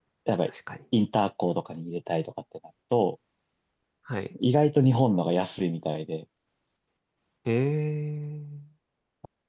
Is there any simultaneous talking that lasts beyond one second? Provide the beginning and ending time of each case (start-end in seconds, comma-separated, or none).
none